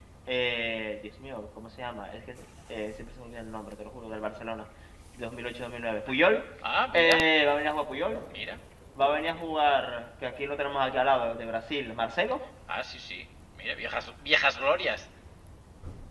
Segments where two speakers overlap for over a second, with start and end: none

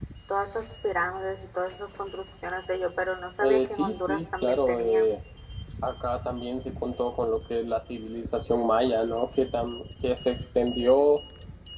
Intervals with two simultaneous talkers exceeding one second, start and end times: 3.4-5.1

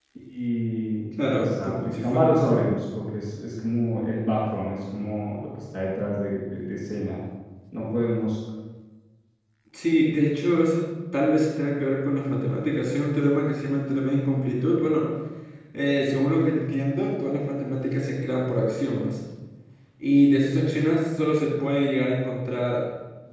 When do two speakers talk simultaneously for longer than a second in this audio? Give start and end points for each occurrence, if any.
1.3-2.7

